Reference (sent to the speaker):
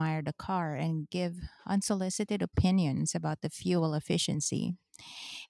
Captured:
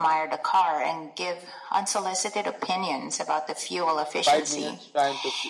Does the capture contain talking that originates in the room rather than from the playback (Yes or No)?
Yes